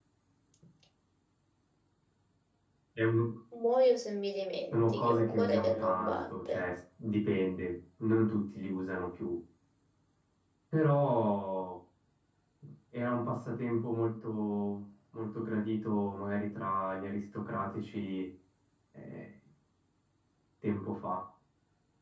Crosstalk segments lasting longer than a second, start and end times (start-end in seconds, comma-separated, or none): 4.7-6.6